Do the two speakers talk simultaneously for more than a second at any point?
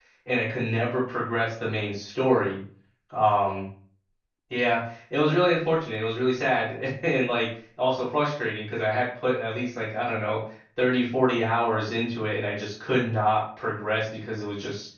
No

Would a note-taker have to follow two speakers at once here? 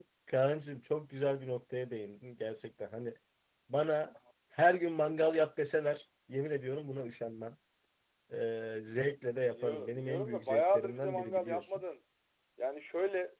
Yes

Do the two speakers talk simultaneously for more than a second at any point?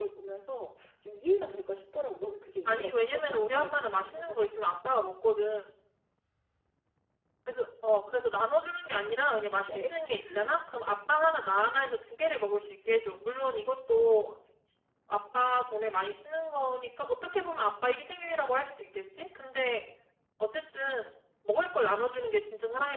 Yes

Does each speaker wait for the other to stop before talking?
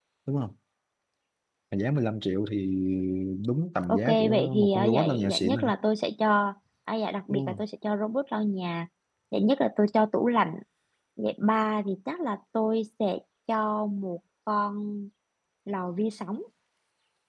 No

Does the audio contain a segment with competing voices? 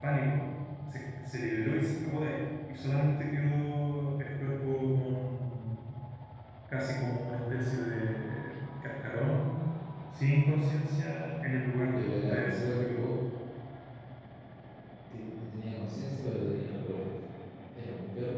Yes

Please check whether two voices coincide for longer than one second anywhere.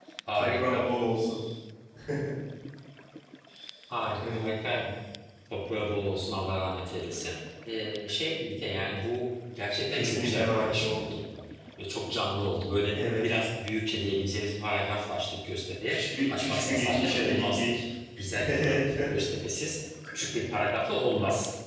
Yes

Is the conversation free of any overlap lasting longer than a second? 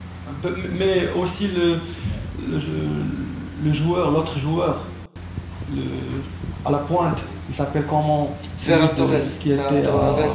No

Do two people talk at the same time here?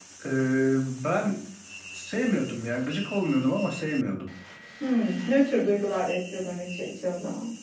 No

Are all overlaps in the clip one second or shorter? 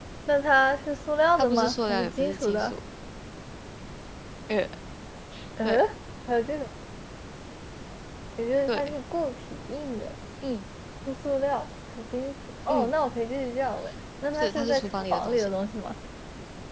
No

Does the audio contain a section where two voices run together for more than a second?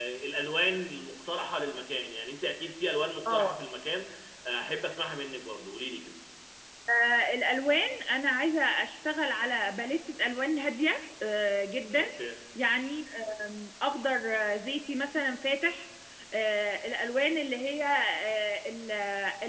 No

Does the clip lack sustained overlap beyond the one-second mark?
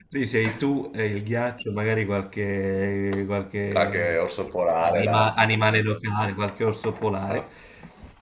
Yes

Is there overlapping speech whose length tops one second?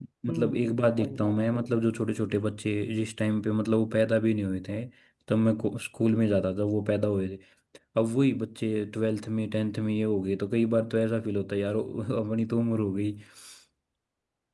Yes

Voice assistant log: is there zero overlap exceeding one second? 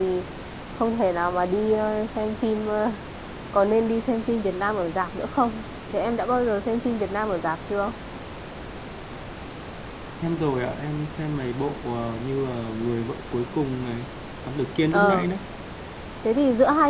Yes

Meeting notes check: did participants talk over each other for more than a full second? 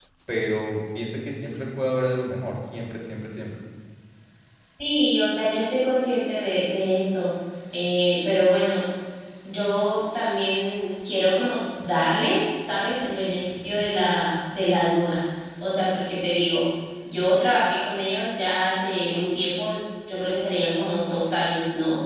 No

